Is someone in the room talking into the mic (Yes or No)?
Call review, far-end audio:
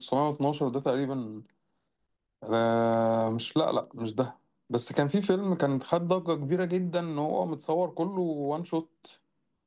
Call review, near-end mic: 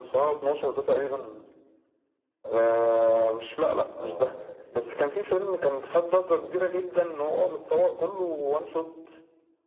Yes